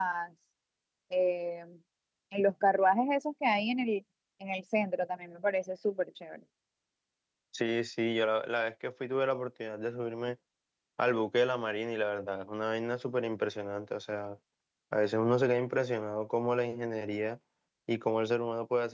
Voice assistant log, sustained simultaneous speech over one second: none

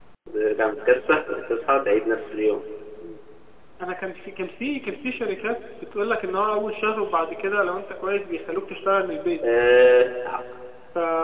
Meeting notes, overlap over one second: none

